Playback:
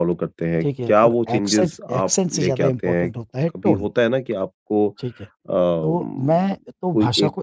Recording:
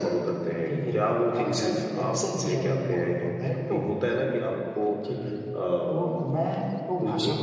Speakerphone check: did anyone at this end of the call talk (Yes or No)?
No